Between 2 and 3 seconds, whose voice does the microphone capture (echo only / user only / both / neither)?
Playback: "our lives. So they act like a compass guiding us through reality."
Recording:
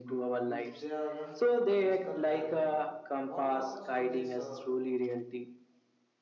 both